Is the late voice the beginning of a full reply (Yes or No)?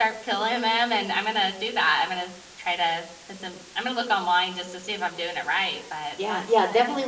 Yes